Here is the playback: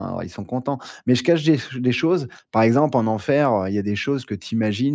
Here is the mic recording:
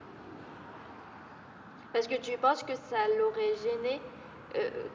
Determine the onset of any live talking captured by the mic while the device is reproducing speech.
1.9 s

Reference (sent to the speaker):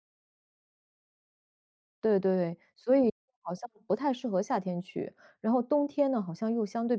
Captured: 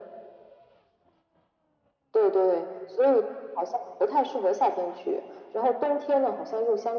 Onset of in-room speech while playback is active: none

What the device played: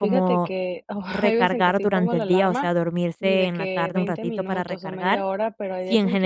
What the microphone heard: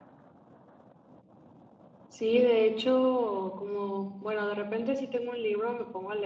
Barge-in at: 2.1 s

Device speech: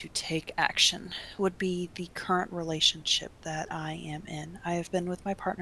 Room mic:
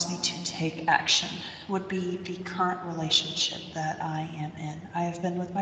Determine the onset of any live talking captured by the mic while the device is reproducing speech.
none

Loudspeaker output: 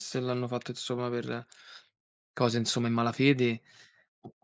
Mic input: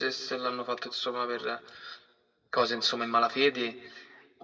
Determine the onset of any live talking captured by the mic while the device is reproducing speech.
none

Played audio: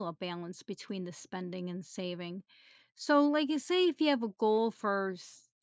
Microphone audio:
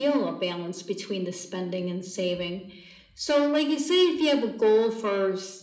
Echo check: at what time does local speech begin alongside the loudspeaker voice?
none

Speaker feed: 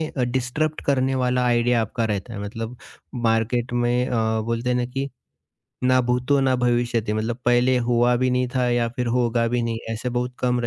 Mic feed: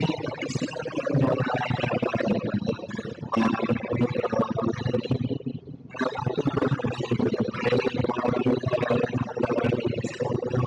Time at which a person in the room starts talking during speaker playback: none

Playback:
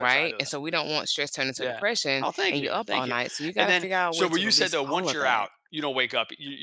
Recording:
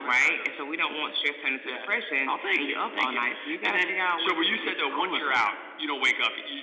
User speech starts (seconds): none

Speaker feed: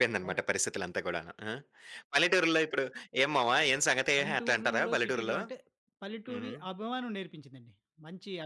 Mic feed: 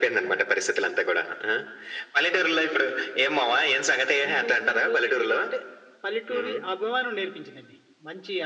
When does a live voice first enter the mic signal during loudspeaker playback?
none

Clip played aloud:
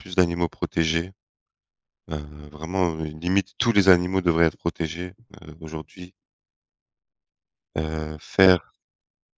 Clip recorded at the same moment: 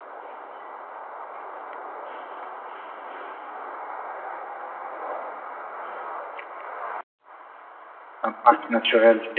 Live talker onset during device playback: 8.2 s

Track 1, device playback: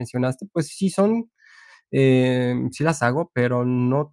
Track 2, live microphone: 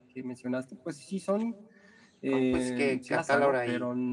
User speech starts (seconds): 2.3 s

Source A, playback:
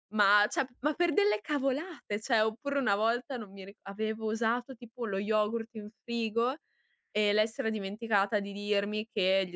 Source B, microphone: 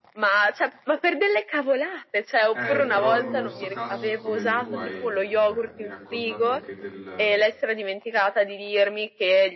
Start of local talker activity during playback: 2.5 s

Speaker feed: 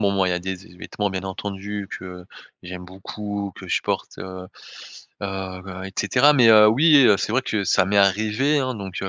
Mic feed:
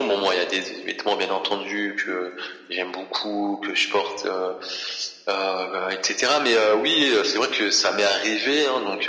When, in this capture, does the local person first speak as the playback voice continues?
none

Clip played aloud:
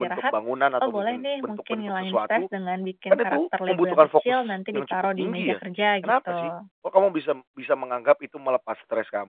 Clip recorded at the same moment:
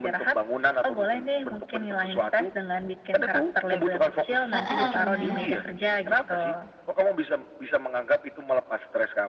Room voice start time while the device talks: 4.5 s

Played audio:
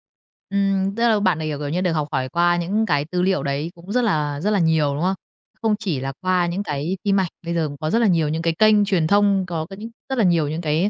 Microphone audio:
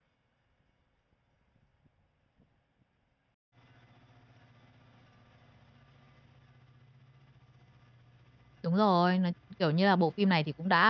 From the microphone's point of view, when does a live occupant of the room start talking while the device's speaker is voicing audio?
8.6 s

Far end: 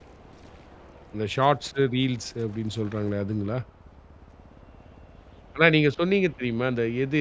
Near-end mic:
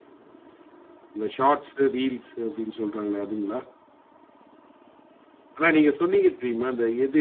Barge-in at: none

